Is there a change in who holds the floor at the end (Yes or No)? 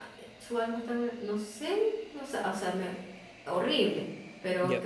No